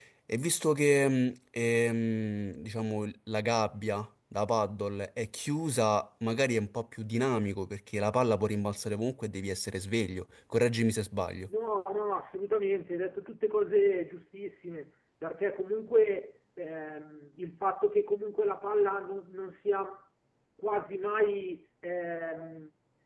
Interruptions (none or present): none